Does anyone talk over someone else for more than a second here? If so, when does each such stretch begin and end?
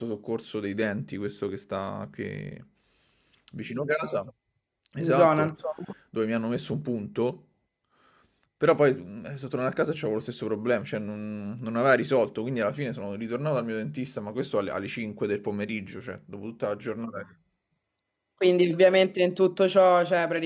none

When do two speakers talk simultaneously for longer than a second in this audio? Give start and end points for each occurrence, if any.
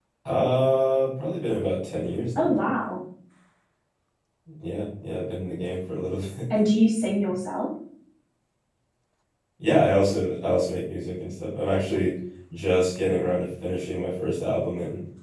none

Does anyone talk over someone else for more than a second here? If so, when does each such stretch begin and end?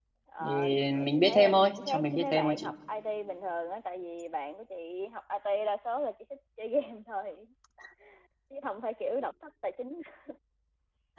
1.1-2.7

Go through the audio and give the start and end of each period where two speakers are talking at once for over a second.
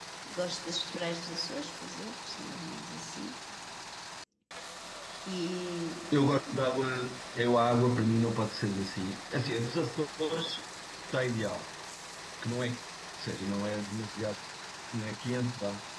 none

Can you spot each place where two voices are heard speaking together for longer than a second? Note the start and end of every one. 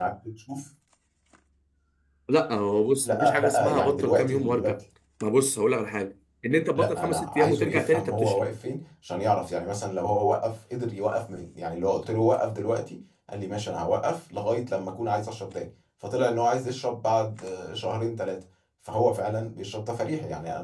3.0-4.8, 6.8-8.4

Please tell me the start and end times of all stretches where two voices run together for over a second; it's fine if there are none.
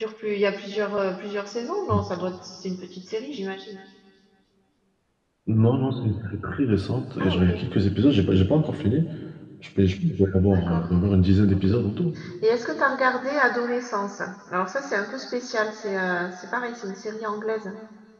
none

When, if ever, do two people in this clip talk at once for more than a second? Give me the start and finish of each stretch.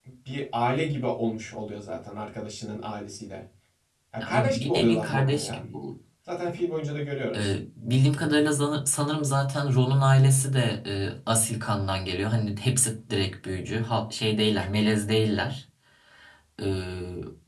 4.2-5.6

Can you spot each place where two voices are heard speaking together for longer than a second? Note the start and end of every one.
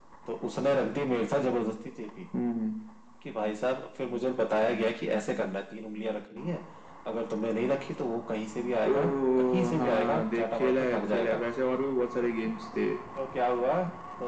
8.9-11.4

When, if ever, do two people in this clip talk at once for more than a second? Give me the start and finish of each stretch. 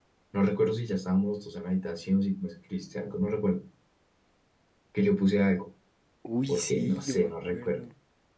6.5-7.8

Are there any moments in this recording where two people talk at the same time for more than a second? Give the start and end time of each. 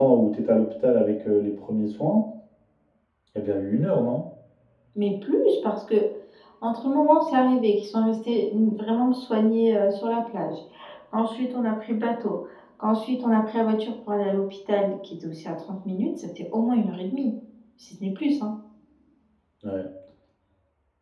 none

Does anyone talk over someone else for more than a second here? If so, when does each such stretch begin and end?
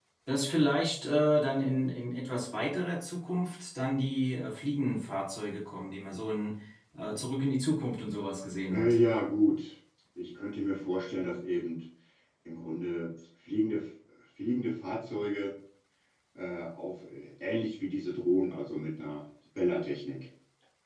none

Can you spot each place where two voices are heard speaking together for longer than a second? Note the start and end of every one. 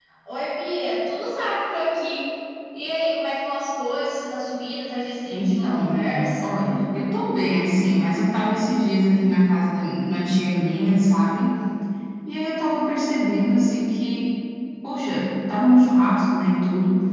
5.3-6.6

